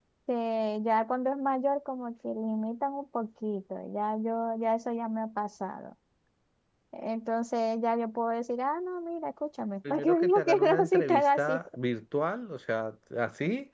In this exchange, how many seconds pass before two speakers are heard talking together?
9.8 s

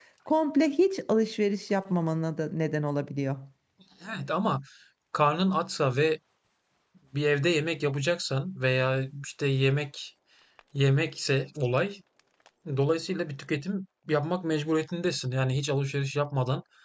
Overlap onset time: none

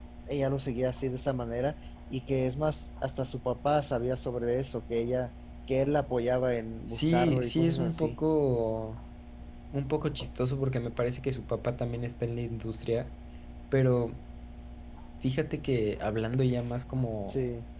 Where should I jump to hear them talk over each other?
6.9 s

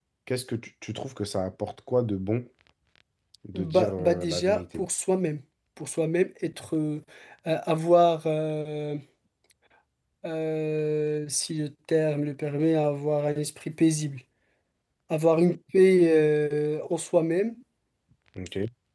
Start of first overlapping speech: 3.5 s

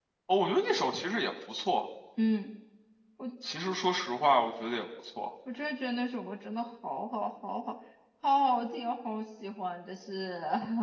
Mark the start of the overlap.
none

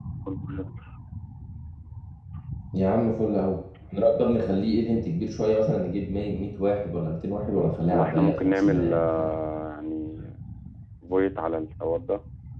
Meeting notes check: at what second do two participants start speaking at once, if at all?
7.9 s

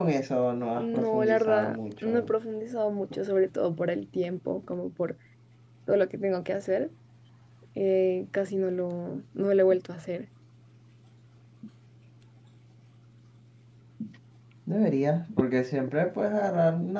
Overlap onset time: 0.8 s

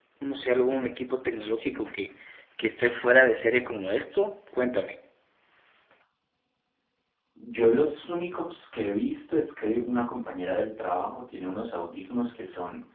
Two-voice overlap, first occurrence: none

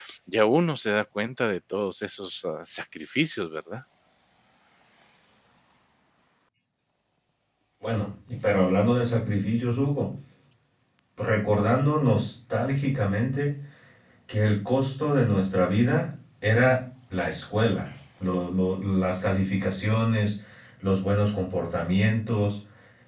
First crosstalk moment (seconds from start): none

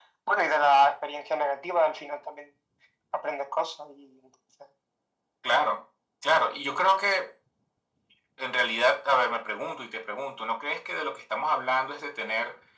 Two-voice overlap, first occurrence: none

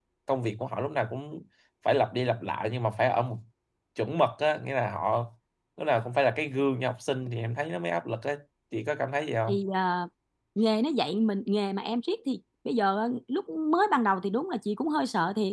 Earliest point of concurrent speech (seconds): none

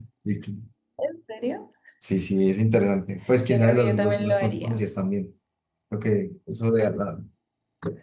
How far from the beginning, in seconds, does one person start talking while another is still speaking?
3.5 s

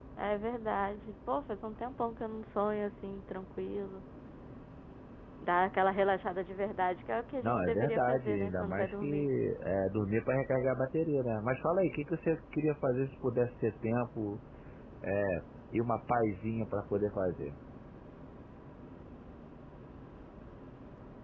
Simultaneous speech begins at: 7.4 s

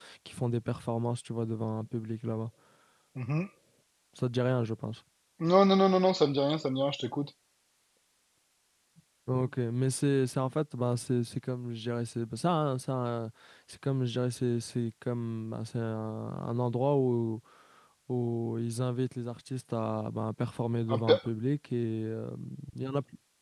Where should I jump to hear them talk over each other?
none

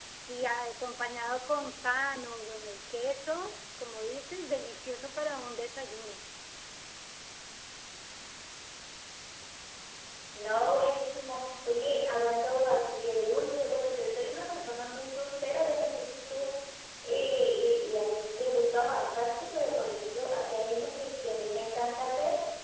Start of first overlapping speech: none

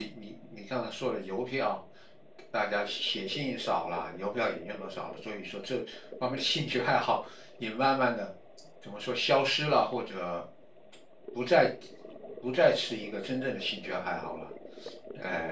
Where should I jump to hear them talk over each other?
none

